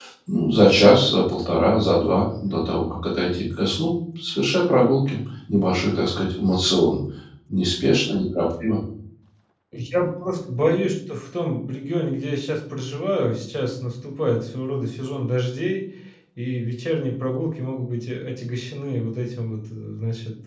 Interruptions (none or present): none